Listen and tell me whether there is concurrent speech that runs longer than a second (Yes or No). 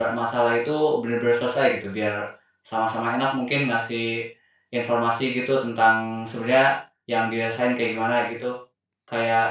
No